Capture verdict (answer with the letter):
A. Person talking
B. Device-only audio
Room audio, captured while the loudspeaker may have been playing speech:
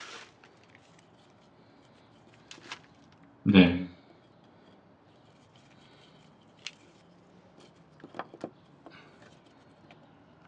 A